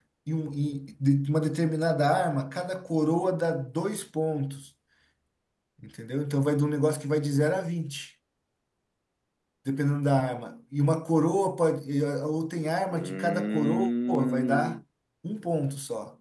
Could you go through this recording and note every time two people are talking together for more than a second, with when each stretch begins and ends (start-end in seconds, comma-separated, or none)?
12.9-14.8